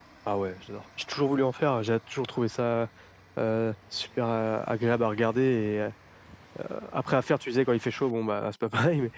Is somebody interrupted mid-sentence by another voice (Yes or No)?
No